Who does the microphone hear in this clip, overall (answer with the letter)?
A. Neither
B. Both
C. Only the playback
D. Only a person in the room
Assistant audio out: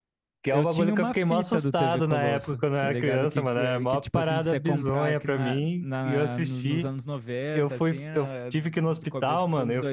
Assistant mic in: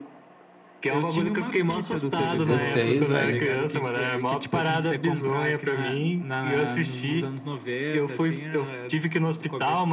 B